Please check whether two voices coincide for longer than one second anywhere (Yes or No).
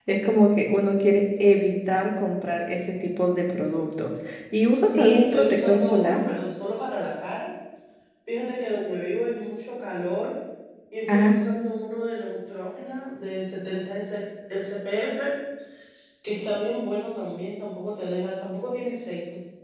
Yes